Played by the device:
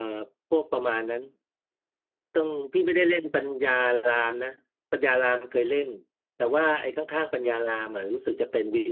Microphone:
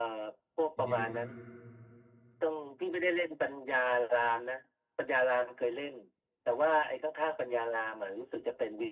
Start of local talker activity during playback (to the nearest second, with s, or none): 1 s